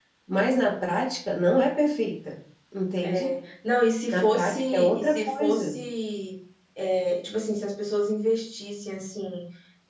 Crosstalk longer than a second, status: present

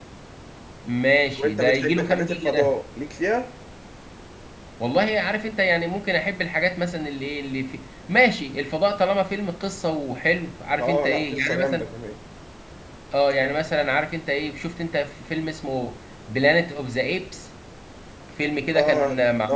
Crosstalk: present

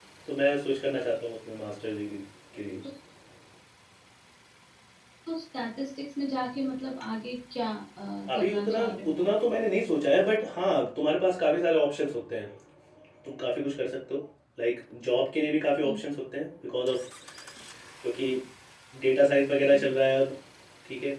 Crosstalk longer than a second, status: present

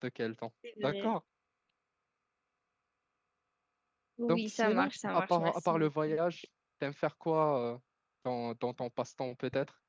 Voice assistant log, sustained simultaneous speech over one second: present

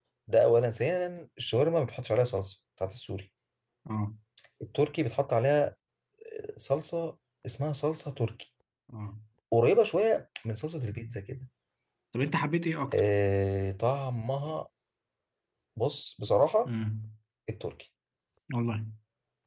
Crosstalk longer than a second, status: none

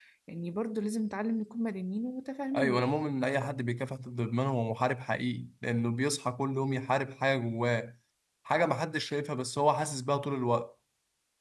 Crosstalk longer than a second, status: none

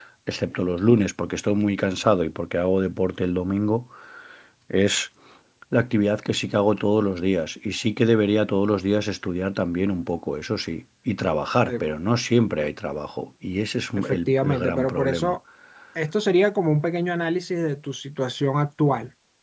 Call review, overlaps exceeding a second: present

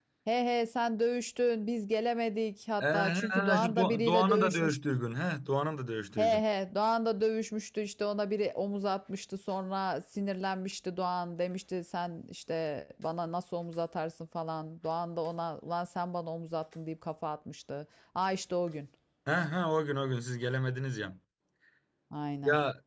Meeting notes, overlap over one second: present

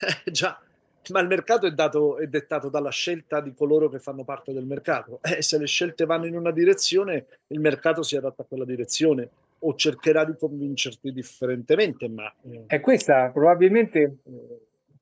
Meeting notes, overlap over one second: none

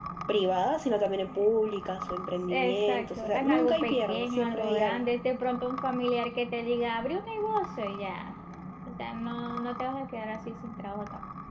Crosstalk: present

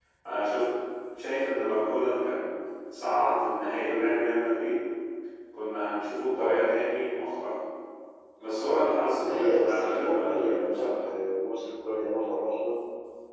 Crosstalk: present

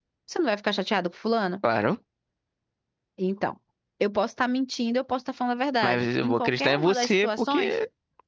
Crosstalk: present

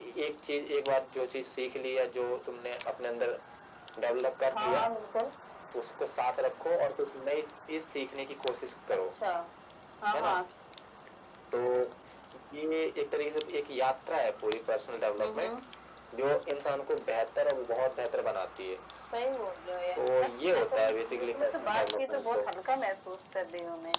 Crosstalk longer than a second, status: present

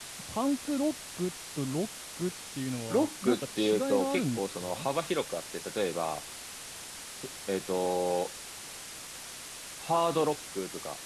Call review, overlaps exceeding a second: present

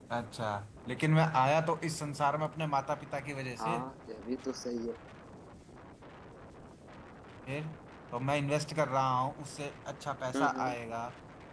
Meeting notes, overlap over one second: none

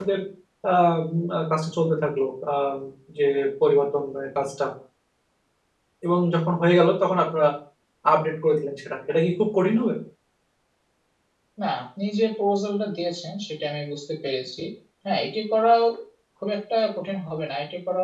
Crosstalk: none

